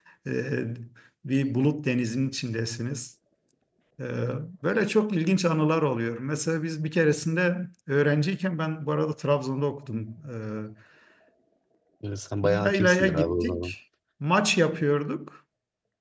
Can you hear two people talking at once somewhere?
Yes, from 12.4 s

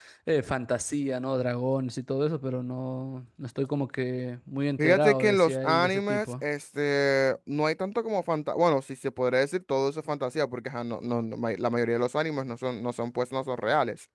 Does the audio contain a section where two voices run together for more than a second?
Yes, from 4.8 s

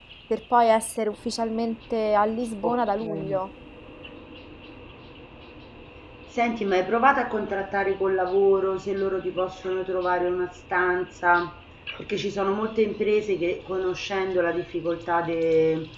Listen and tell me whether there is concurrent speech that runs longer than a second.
No

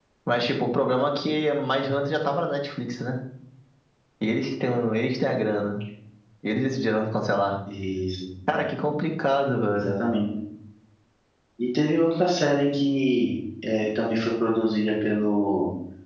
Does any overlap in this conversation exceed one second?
No

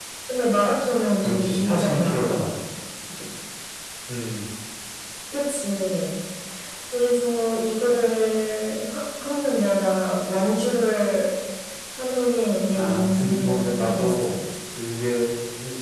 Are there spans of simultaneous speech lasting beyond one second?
Yes, from 1.2 s

